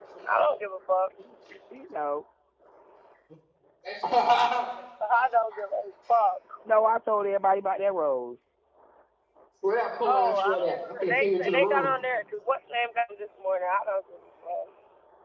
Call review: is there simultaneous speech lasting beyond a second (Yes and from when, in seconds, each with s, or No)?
Yes, from 10.0 s